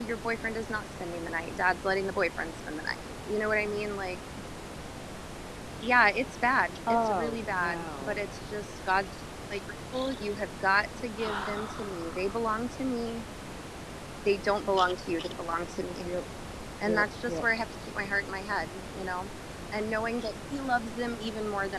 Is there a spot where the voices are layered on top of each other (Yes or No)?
Yes